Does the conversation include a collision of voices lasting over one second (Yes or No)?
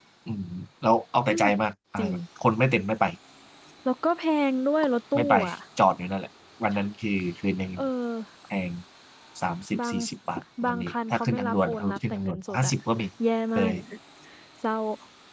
Yes